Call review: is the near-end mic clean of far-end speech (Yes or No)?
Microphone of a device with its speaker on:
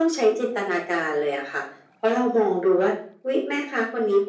No